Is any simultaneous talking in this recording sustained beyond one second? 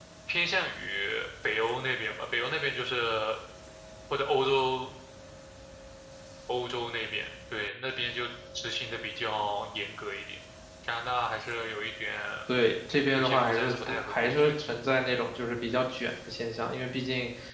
Yes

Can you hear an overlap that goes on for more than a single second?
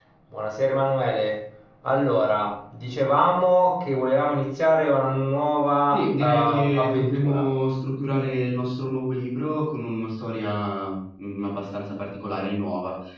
Yes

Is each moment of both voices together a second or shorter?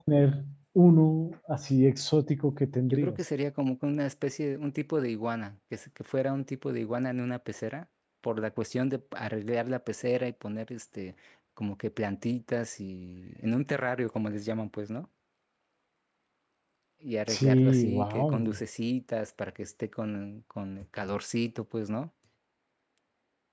No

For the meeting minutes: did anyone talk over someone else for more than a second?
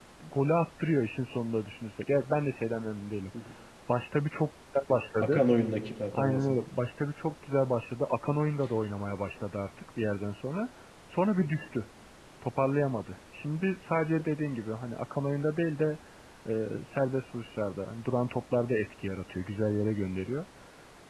No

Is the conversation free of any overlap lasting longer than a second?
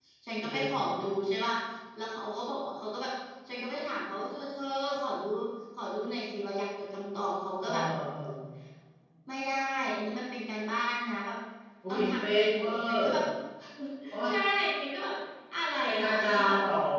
No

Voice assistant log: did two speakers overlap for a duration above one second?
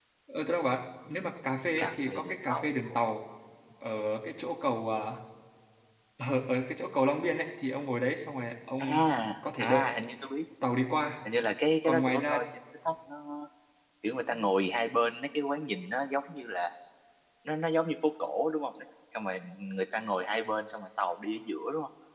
Yes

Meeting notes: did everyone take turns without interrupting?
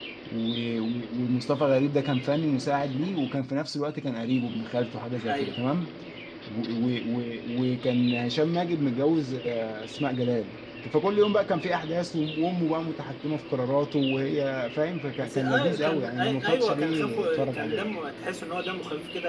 No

